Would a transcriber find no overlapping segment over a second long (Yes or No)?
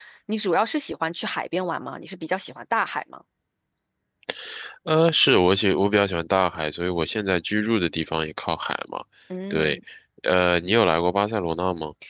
Yes